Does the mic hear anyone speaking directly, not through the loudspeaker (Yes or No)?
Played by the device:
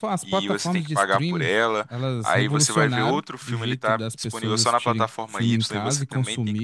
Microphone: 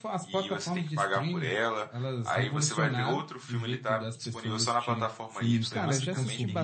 Yes